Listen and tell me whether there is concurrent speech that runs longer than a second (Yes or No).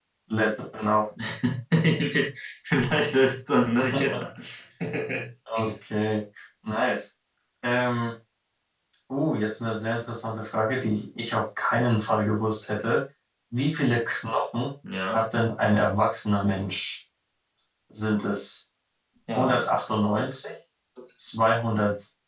No